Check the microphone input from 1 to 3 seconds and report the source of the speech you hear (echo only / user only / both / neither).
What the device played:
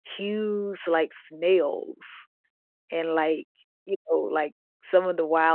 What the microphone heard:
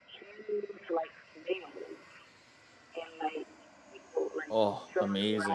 echo only